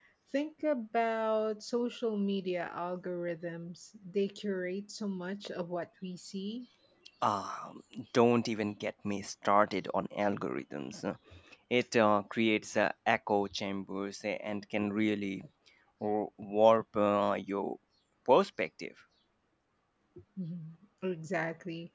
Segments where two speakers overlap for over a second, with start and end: none

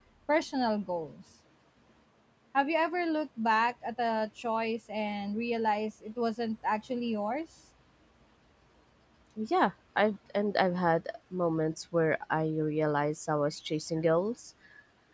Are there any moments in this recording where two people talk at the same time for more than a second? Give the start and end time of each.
none

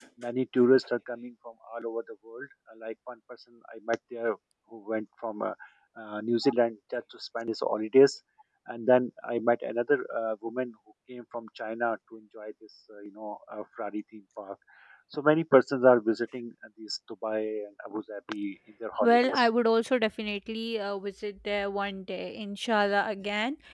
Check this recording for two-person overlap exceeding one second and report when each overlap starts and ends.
none

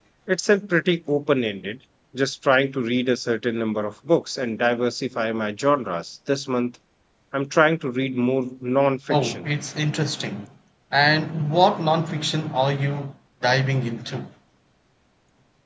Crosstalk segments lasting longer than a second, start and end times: none

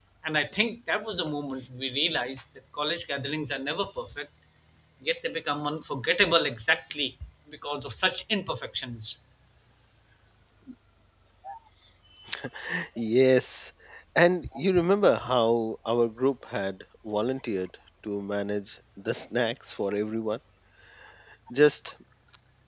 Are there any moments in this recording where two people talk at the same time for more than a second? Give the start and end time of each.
none

